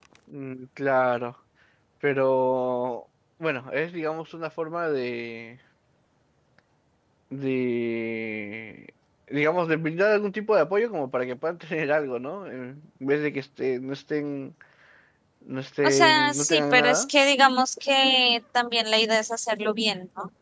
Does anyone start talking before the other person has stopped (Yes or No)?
Yes